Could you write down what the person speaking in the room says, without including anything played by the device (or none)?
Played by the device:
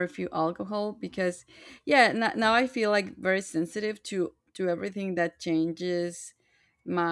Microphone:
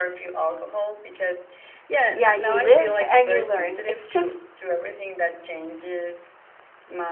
yeah you live and you learn it's just